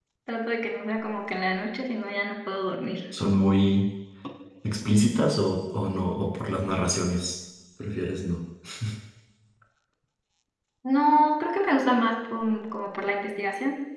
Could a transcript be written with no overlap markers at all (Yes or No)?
Yes